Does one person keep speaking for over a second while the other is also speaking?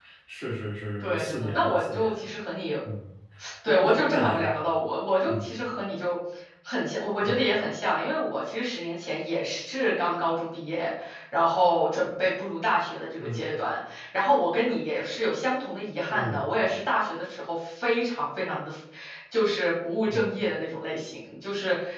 Yes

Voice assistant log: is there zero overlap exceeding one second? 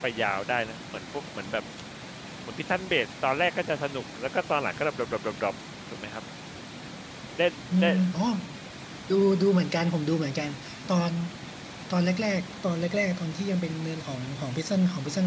Yes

